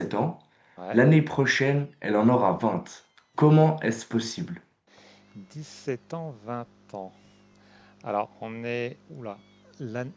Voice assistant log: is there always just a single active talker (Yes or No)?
Yes